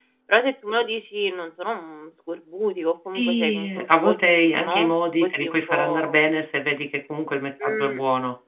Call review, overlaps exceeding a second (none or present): present